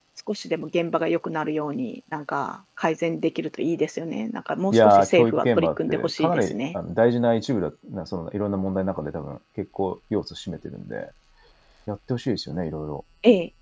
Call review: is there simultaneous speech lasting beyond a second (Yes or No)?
Yes